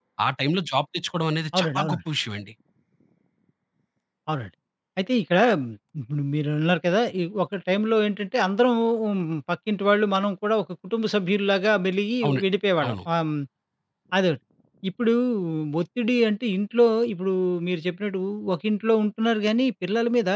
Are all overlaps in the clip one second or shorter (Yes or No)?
Yes